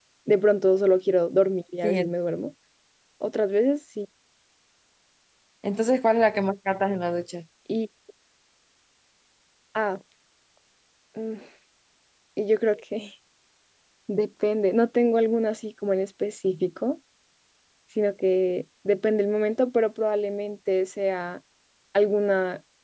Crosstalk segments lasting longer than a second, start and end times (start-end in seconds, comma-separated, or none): none